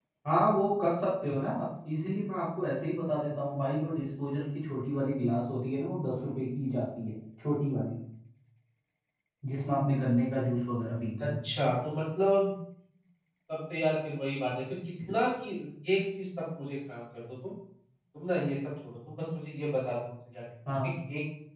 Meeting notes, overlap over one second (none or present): none